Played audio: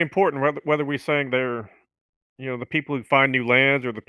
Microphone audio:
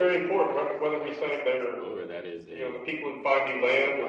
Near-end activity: present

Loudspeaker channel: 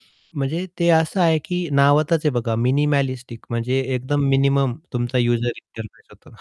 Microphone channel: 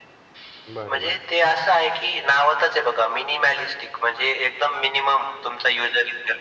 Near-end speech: present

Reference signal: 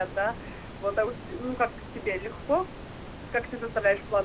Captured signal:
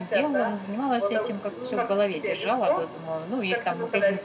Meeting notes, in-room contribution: present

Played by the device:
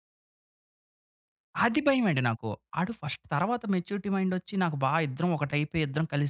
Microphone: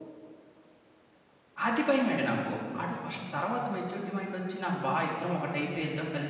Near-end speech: none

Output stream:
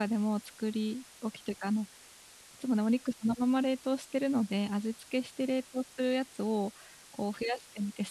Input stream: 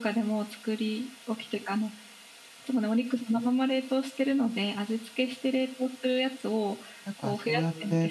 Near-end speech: present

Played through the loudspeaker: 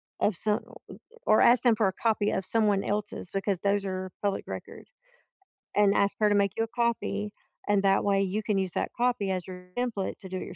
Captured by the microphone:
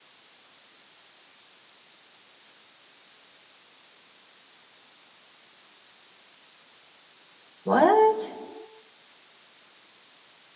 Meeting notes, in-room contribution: present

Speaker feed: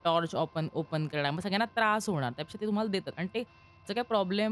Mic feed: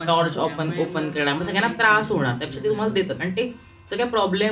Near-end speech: present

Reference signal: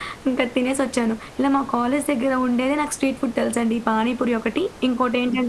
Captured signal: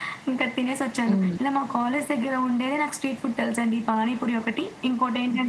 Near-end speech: present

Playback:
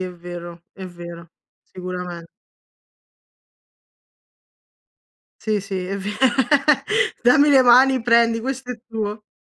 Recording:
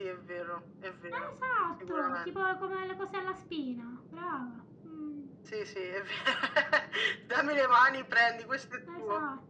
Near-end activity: present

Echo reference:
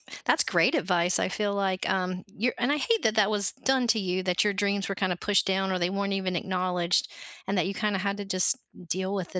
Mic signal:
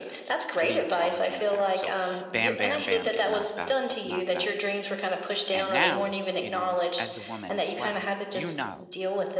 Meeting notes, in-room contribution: present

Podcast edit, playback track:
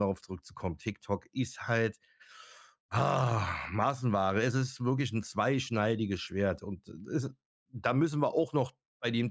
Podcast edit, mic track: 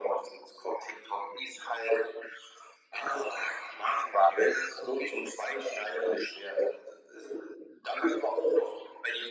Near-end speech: none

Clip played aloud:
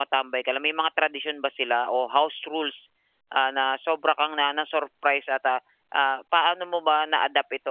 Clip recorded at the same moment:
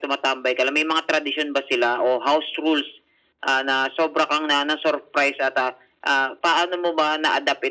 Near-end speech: none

